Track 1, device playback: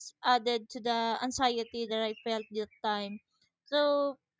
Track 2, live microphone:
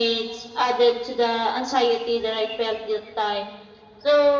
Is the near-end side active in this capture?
No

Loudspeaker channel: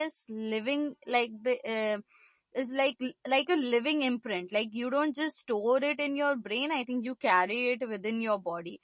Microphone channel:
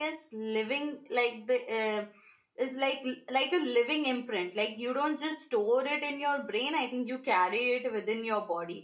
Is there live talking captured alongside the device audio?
No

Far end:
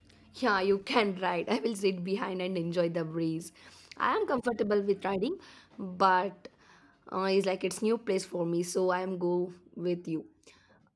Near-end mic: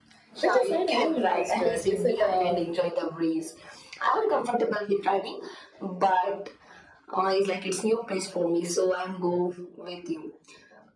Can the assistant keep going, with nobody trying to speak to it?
No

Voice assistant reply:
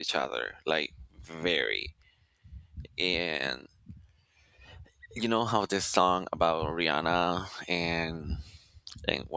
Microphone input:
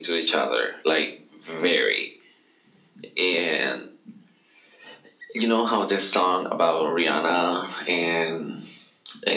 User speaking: No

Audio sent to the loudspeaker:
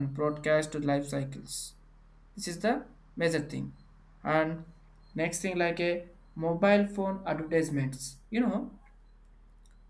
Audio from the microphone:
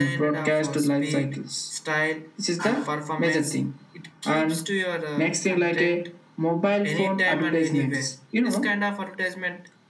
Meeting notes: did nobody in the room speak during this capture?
No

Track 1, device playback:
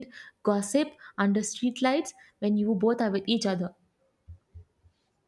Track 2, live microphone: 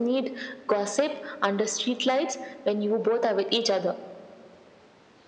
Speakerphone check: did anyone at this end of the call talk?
No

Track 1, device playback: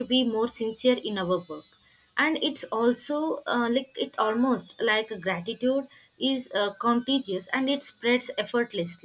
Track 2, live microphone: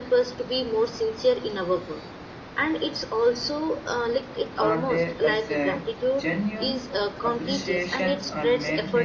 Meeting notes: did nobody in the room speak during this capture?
No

